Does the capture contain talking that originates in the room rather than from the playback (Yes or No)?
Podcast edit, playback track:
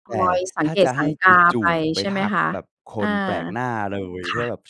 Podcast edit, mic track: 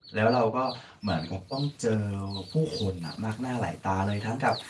Yes